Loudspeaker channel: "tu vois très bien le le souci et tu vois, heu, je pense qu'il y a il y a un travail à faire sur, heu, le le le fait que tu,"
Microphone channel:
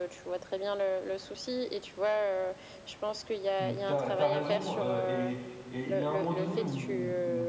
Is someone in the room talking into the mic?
Yes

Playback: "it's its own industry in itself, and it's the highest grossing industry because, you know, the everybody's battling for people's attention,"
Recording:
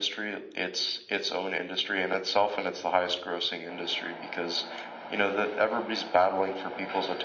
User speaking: No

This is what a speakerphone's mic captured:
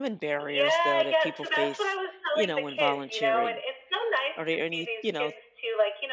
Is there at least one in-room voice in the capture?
Yes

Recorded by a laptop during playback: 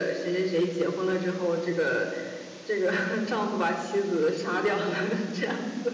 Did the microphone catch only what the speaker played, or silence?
Yes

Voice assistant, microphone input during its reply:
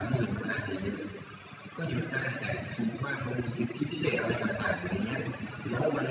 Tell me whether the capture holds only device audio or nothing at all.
Yes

